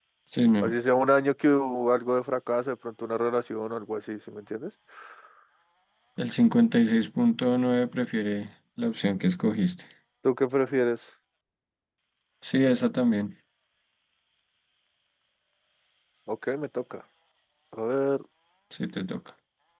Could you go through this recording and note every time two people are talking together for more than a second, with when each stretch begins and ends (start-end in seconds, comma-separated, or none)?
none